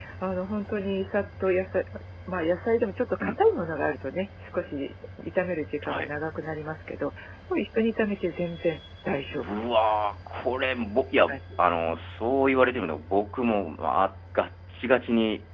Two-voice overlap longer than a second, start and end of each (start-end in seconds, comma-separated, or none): none